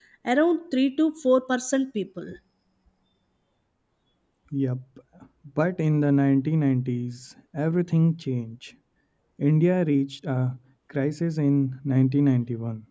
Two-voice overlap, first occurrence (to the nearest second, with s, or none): none